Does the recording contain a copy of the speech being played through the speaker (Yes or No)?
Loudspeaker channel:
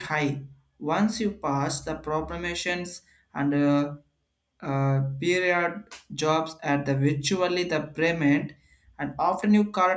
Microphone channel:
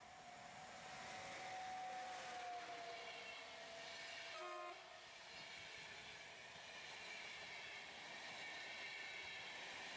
No